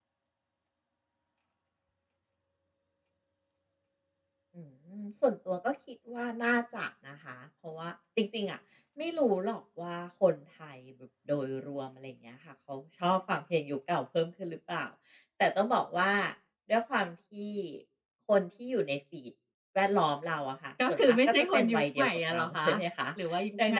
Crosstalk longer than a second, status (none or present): present